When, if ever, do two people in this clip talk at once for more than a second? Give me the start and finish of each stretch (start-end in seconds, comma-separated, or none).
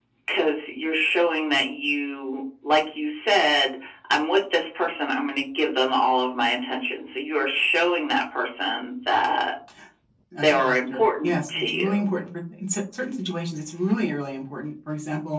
10.4-11.9